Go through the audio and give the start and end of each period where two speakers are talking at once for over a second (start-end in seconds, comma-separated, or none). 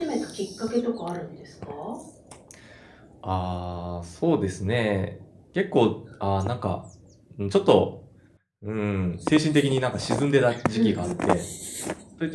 none